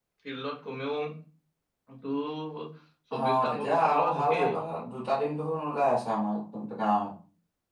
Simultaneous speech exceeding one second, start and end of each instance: 3.1-4.5

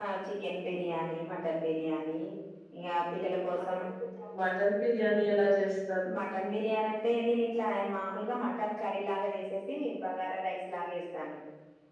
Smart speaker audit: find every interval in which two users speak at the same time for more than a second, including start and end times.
none

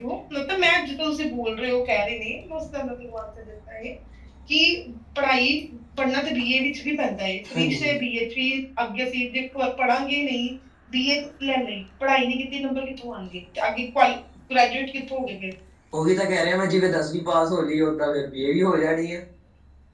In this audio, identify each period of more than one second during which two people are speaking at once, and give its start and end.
none

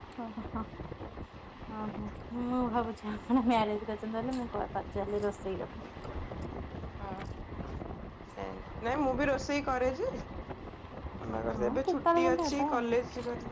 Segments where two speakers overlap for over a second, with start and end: 11.7-12.9

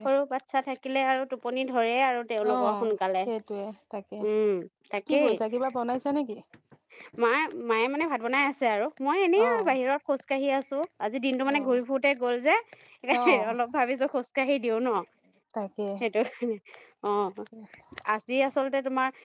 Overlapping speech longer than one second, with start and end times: none

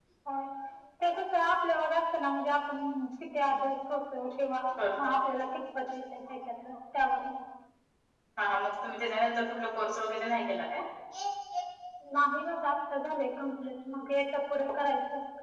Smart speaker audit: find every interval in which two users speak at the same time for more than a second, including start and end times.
none

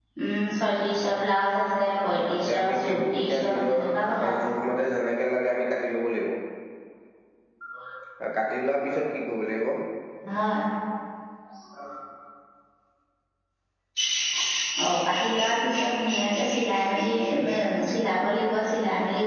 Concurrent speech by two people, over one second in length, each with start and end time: 2.1-3.8

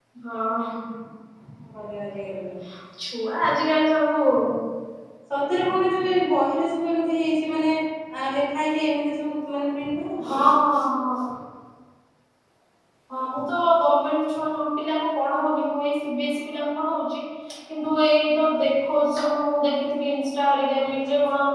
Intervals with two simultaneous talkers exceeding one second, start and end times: none

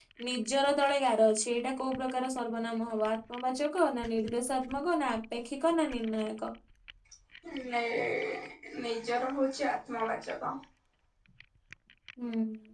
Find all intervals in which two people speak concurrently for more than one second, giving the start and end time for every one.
none

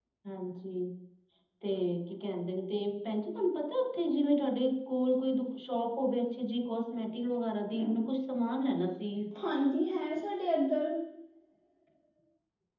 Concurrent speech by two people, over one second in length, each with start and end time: none

